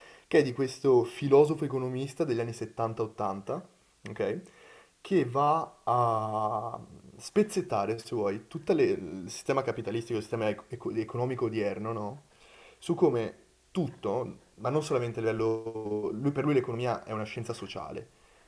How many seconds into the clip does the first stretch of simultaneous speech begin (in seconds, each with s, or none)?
none